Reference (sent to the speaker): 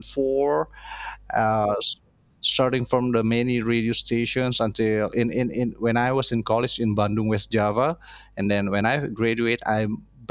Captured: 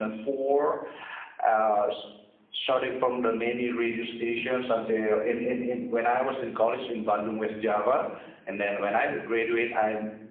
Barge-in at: none

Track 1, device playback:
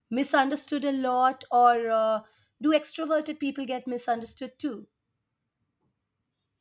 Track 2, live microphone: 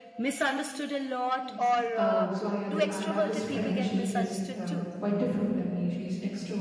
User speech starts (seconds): 1.4 s

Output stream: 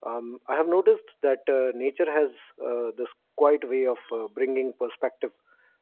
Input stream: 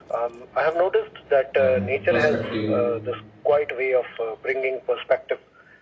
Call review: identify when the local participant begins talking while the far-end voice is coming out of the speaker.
1.6 s

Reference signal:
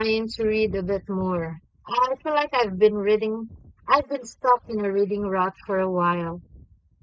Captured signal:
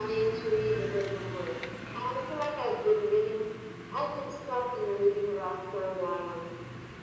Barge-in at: none

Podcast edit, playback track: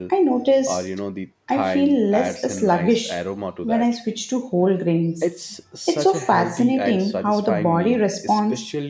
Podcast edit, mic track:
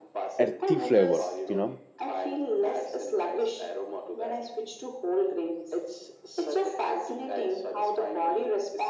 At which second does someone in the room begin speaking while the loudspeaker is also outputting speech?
0.4 s

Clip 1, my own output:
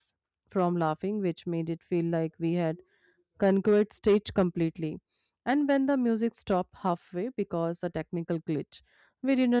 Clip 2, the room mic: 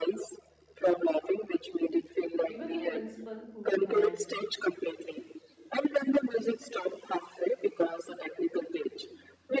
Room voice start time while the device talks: 2.5 s

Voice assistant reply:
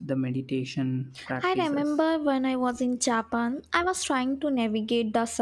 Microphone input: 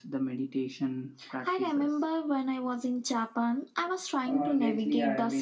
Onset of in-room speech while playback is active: 4.3 s

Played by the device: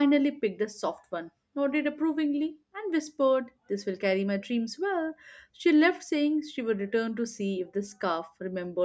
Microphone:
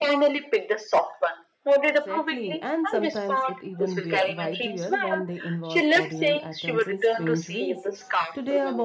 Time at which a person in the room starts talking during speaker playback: 1.8 s

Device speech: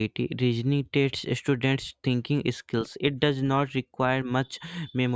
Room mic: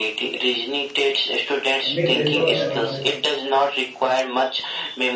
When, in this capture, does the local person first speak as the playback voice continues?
1.8 s

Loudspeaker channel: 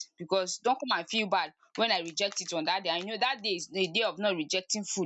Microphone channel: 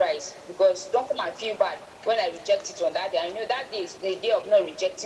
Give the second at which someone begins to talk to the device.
none

